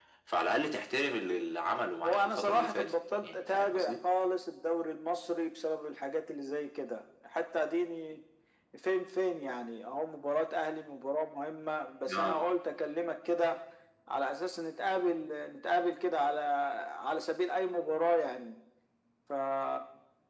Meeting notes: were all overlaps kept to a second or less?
No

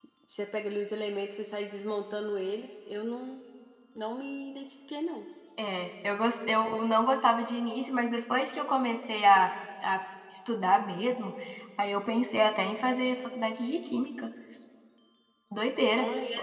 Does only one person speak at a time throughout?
Yes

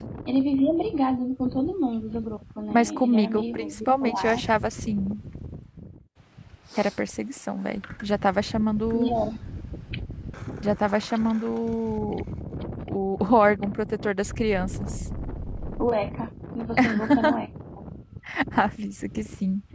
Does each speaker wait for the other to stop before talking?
No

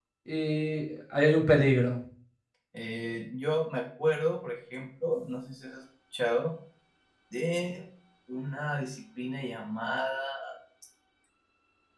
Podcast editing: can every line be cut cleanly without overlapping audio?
Yes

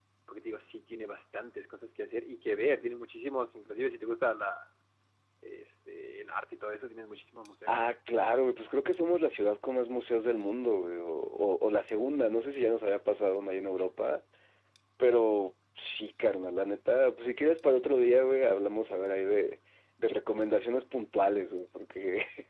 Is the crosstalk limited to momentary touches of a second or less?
Yes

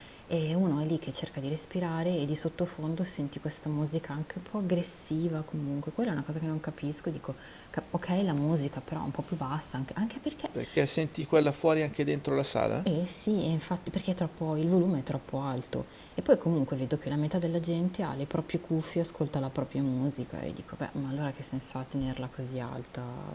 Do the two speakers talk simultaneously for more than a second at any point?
No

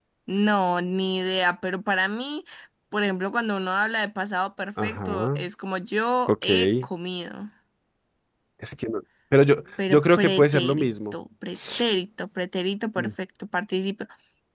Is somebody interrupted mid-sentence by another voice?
Yes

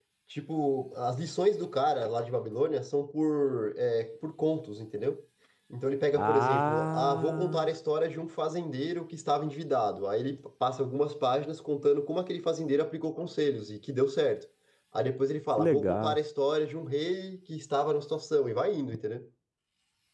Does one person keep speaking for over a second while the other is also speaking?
Yes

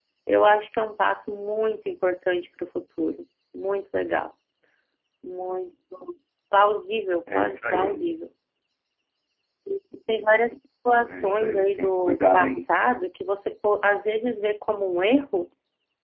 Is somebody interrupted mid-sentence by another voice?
Yes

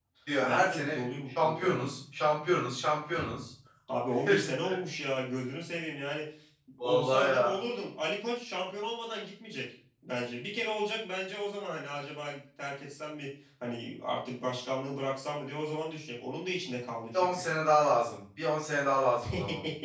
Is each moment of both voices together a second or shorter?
No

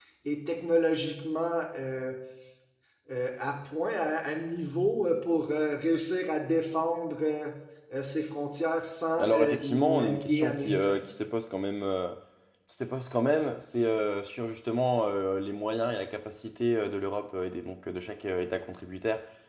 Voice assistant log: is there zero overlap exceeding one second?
No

